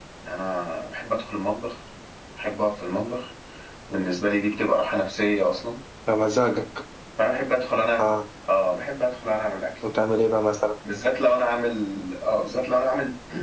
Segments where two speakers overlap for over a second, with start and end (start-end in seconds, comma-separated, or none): none